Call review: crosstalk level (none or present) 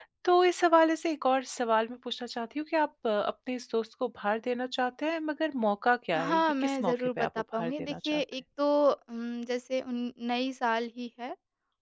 present